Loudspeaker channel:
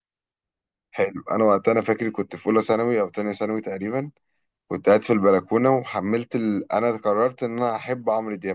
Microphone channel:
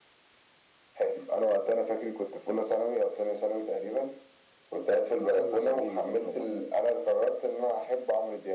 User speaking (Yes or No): Yes